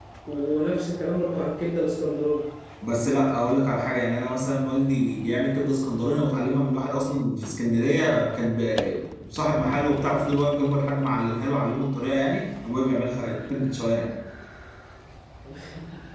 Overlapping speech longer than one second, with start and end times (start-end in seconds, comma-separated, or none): none